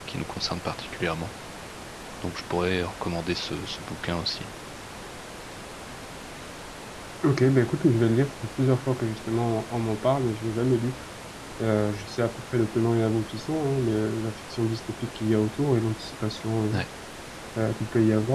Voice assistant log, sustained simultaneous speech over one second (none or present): none